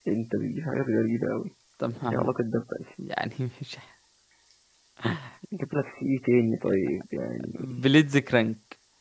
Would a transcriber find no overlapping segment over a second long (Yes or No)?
Yes